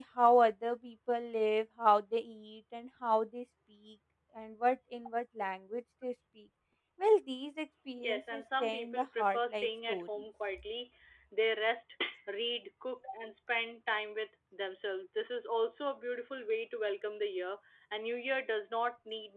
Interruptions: present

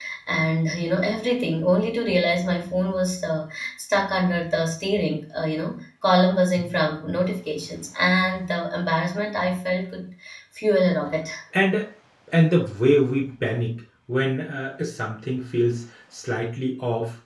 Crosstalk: none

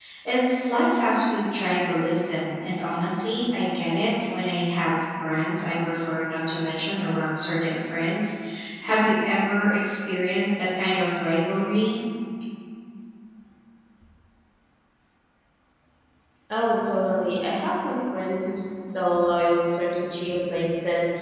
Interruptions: none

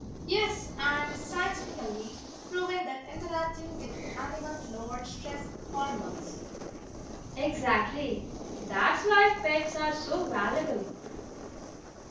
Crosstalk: none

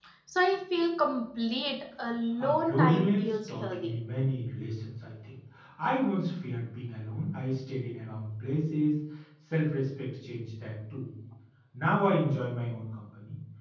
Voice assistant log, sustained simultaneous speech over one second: present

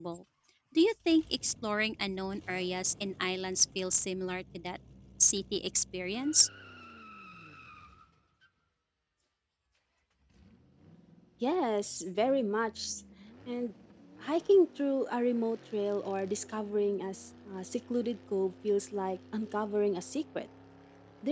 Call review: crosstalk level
none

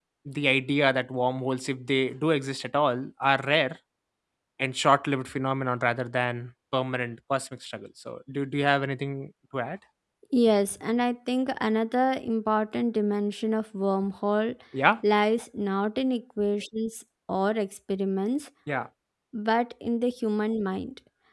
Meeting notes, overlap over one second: none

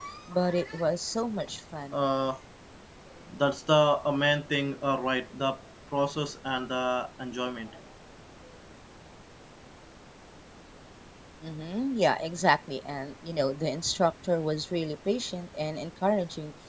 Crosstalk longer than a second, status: none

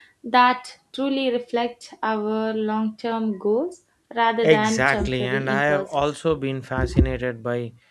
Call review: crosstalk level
present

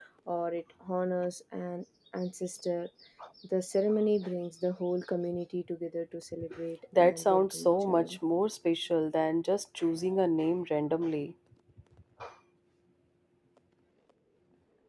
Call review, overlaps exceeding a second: present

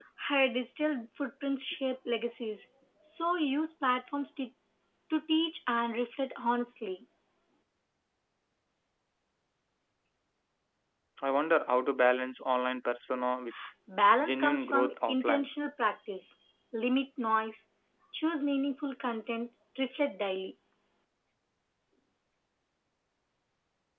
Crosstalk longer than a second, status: present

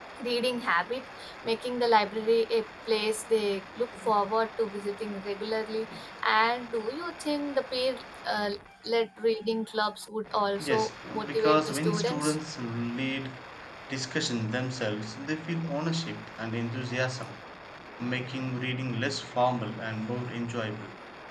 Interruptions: present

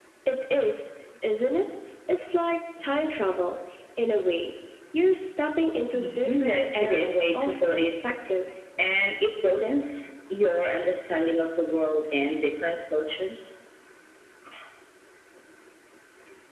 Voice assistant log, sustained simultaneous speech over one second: present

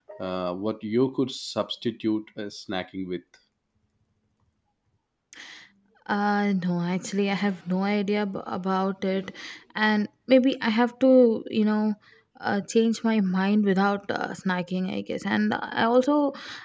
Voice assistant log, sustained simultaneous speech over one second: none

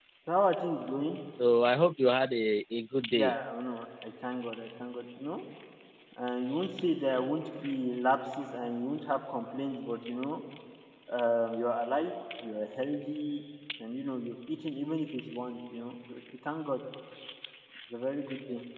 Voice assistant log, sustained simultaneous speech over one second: none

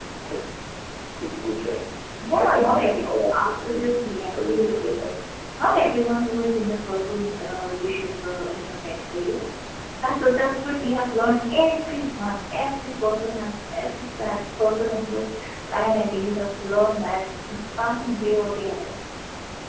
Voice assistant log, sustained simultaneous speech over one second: present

